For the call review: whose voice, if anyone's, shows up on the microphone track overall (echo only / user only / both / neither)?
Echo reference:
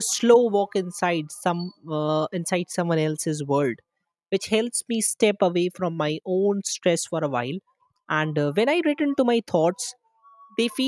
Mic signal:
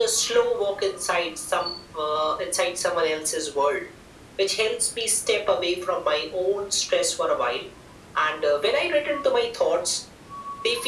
echo only